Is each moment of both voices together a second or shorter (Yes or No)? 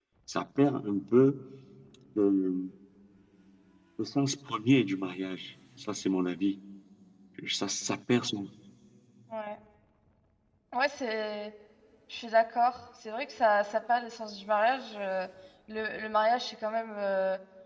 Yes